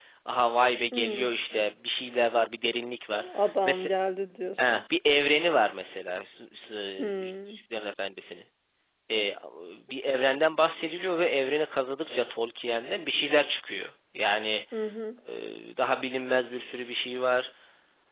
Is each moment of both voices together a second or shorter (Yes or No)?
Yes